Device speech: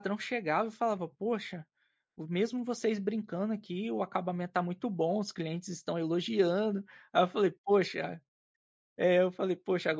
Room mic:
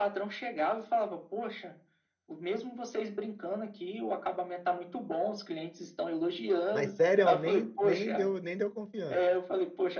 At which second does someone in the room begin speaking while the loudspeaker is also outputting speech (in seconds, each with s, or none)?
6.7 s